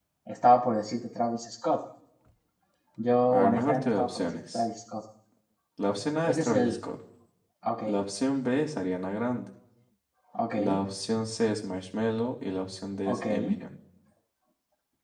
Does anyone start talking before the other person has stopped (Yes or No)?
Yes